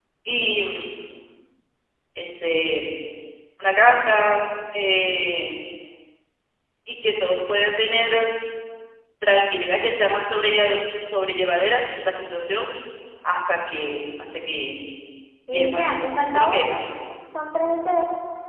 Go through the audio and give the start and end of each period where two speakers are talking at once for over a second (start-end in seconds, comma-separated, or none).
15.5-16.8